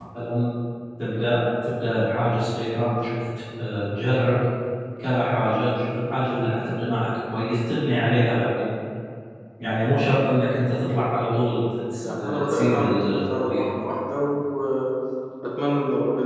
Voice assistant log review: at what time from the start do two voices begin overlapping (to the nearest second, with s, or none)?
12 s